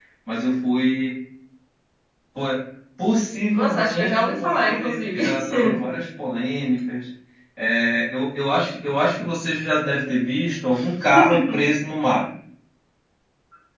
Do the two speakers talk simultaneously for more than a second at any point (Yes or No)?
Yes